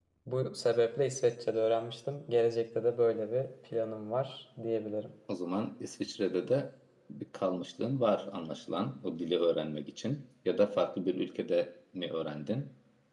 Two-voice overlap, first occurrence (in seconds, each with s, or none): none